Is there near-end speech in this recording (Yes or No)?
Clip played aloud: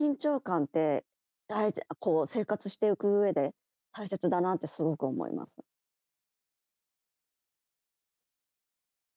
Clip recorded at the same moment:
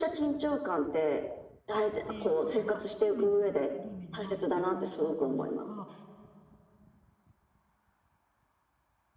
Yes